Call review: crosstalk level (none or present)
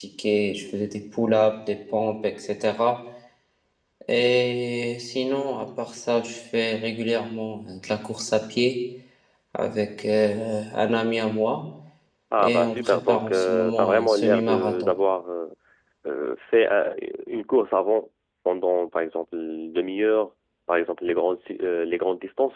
present